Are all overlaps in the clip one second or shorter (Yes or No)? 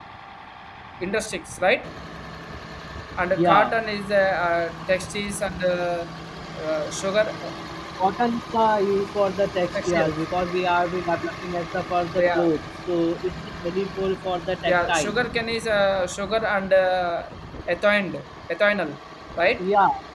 Yes